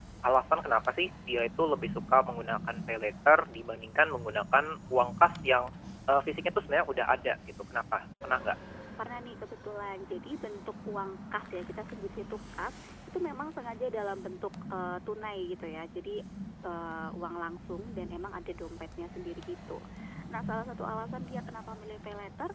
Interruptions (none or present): none